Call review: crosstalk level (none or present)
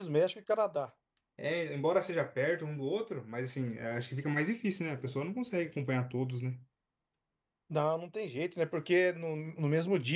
none